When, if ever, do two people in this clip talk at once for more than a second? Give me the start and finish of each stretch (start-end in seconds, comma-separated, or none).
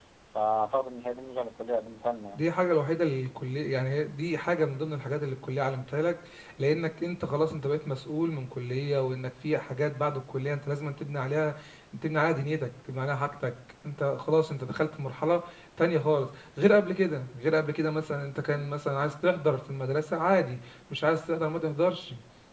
none